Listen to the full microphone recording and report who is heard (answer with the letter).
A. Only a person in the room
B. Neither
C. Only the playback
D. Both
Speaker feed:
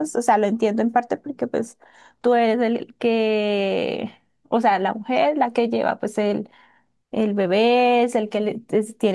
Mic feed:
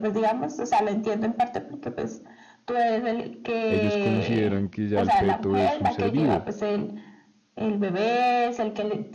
D